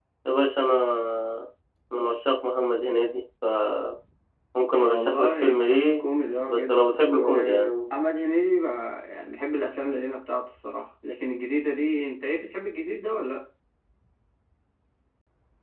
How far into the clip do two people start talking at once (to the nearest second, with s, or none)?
5 s